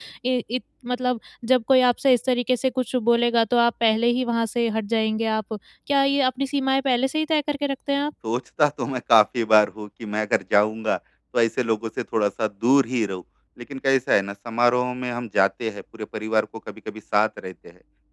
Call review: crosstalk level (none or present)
none